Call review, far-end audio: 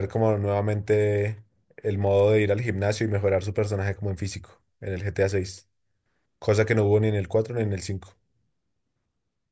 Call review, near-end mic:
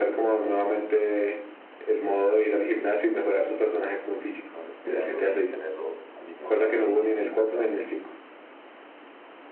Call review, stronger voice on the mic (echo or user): echo